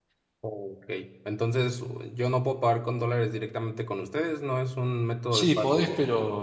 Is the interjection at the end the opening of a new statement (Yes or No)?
Yes